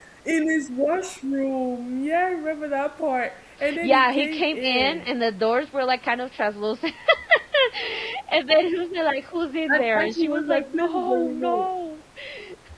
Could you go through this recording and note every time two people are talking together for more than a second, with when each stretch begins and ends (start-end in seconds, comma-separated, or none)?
3.8-5.0, 9.7-11.7